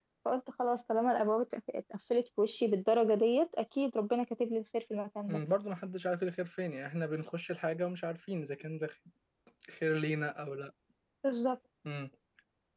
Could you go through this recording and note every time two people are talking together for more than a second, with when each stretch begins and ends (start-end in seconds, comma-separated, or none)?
none